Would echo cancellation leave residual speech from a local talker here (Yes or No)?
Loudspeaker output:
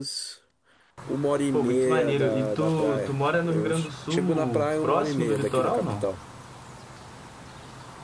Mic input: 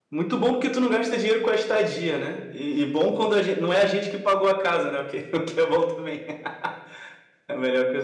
Yes